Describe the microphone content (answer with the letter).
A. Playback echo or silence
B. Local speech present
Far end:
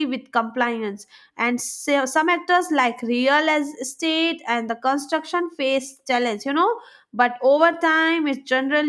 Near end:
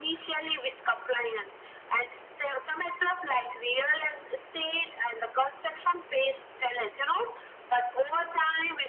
A